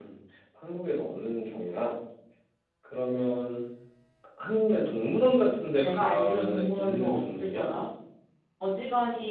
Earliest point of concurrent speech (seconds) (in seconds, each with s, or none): 5.8 s